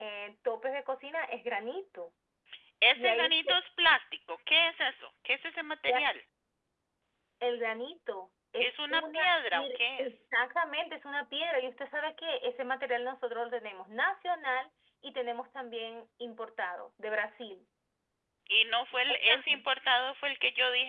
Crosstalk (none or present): present